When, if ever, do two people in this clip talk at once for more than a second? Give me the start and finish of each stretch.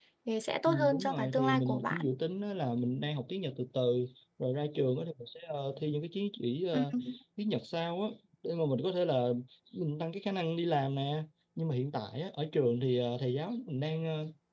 0.7-2.0

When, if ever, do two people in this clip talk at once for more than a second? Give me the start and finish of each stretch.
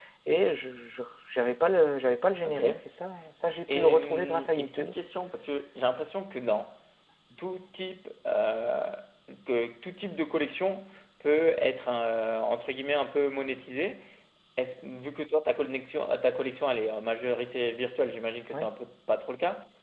3.7-4.9

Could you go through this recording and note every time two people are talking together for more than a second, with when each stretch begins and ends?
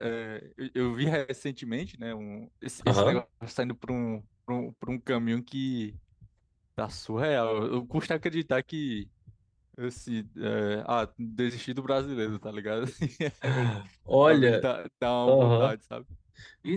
none

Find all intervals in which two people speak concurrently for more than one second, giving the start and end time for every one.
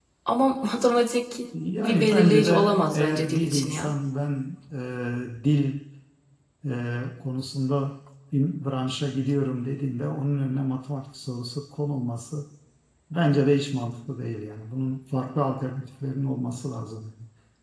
1.8-3.9

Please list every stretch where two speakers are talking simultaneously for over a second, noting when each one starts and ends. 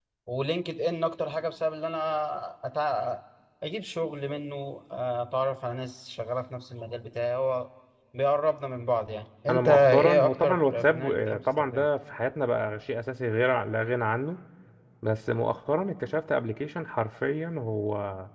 9.5-11.9

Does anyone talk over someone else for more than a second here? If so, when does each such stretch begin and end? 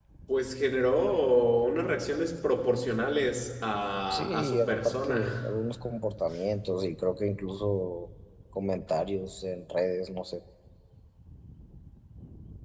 4.1-5.5

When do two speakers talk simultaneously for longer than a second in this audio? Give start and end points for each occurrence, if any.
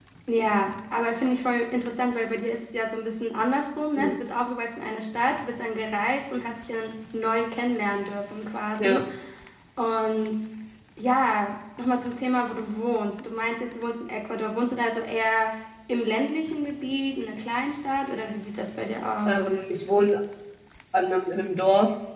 none

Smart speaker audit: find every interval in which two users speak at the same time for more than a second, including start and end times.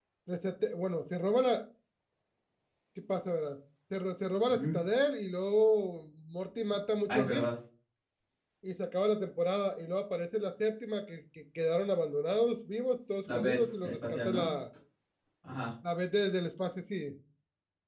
13.3-14.5

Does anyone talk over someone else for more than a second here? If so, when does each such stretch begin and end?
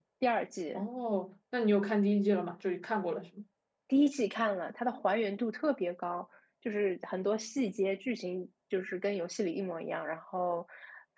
none

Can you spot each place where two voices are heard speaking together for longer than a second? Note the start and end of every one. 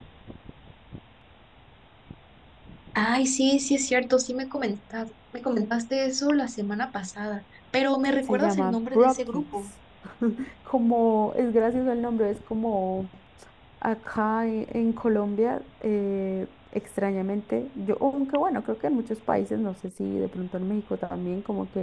8.2-9.7

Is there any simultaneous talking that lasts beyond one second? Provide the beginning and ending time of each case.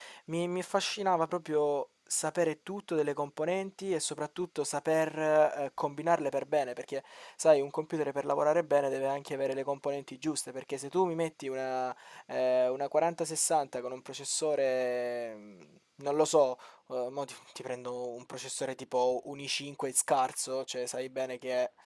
none

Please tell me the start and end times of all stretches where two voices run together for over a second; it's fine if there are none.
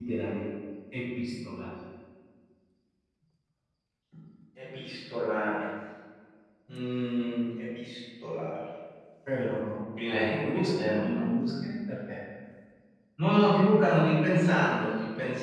10.0-11.3

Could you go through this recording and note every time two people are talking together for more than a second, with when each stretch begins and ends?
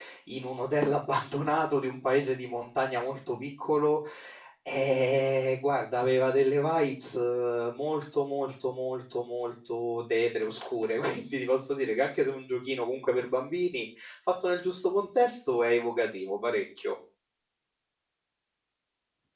none

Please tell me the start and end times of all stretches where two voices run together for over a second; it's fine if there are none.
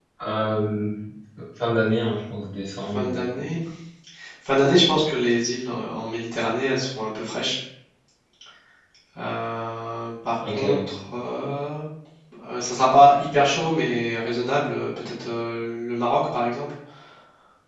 none

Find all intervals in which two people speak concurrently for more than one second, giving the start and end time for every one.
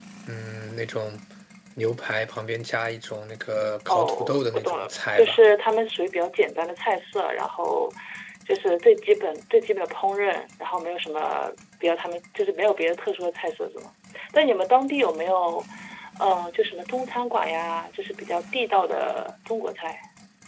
3.9-5.4

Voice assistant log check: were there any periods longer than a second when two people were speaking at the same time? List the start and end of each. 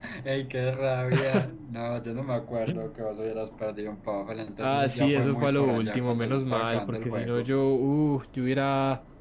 4.6-7.5

